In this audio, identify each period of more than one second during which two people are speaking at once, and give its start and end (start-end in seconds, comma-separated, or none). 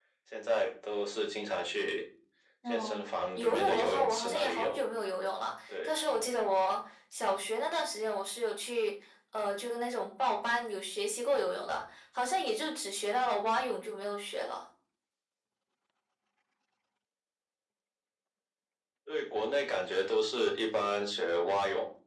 3.4-4.8